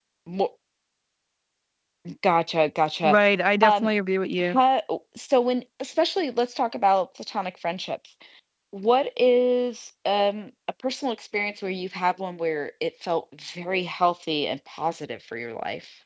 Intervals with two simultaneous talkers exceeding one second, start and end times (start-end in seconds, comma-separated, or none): none